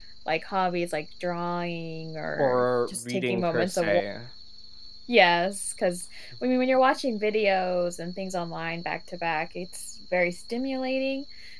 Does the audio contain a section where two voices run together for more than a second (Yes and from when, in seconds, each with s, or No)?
Yes, from 2.4 s